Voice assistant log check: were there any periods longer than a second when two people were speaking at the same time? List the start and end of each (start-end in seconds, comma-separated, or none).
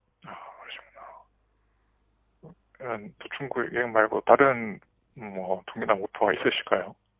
none